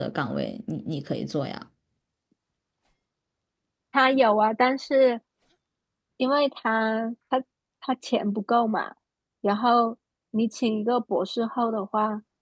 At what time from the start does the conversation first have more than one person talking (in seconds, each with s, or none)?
none